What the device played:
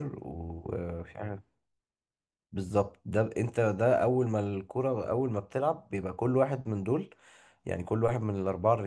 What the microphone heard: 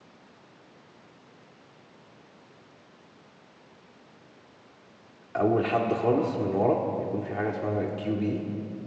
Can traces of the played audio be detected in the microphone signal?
No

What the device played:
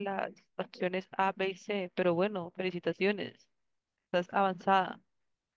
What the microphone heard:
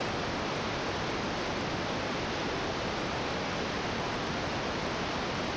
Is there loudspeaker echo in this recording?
No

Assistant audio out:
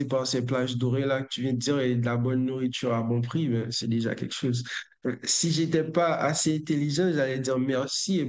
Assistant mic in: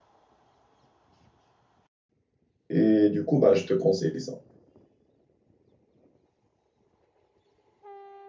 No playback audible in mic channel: Yes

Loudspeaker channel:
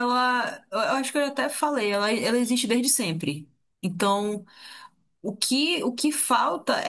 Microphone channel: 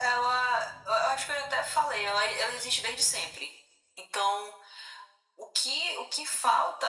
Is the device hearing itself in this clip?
Yes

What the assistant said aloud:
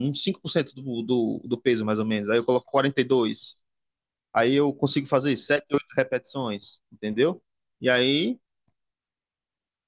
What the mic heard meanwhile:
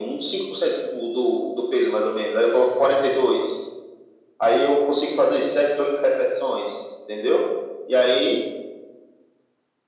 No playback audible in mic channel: No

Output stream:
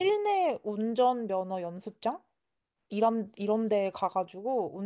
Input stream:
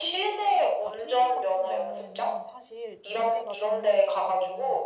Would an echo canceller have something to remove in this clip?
Yes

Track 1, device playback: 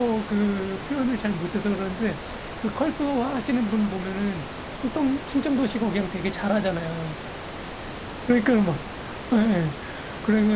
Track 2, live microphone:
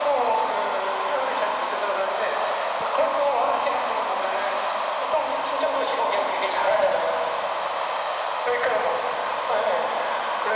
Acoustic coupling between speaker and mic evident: Yes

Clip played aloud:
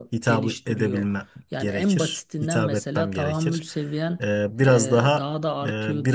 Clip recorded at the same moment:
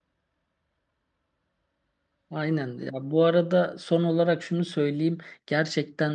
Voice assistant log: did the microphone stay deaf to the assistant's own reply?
Yes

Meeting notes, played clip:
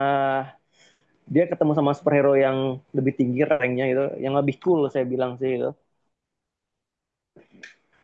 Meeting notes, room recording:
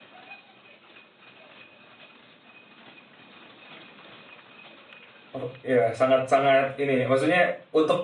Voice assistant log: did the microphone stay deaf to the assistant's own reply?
Yes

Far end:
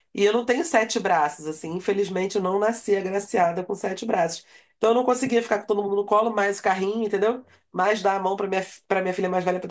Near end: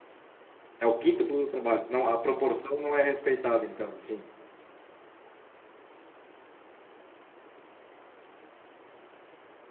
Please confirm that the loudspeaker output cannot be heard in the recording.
Yes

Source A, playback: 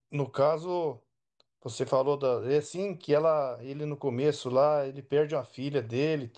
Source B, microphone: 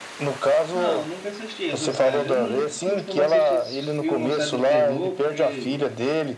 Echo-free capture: No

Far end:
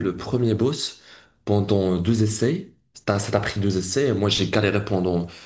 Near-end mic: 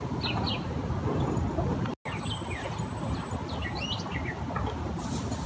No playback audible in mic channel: Yes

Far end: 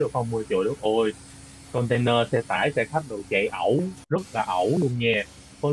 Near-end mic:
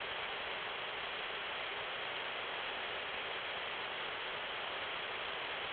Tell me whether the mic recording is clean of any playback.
Yes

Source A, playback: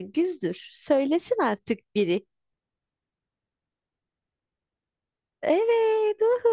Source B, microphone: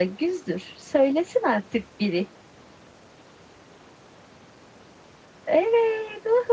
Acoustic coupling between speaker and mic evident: Yes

